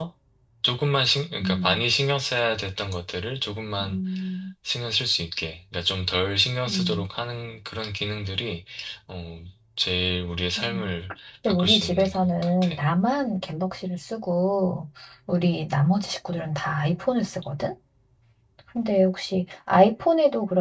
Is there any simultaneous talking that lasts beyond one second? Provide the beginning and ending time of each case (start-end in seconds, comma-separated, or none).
11.4-12.8